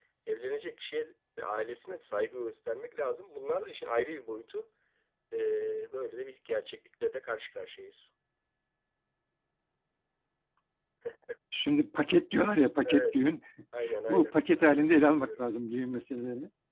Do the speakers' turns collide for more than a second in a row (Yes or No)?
Yes